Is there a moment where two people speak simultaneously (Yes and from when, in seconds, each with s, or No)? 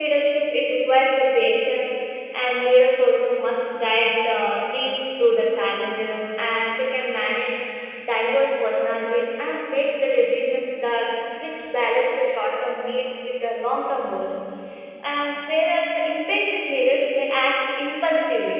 No